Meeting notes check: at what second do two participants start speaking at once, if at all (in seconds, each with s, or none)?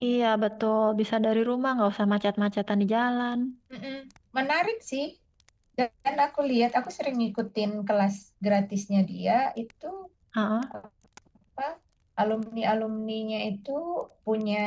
none